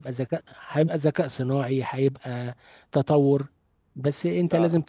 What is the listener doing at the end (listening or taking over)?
listening